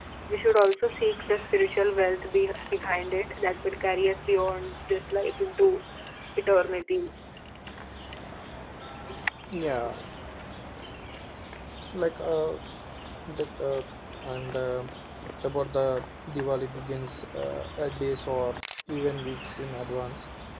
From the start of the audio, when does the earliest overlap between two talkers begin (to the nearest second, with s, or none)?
none